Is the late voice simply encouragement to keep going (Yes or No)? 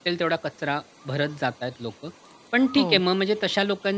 Yes